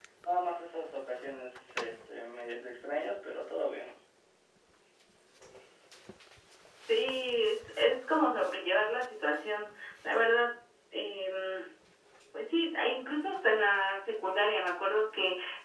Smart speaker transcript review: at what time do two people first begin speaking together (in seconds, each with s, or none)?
none